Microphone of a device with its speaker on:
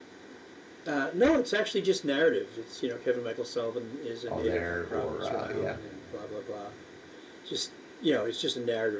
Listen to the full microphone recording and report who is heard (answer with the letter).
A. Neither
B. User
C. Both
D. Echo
C